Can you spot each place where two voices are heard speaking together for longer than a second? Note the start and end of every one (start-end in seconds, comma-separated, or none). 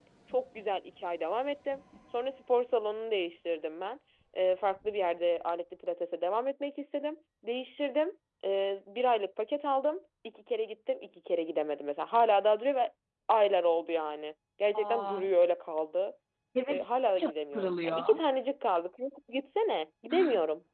16.7-18.2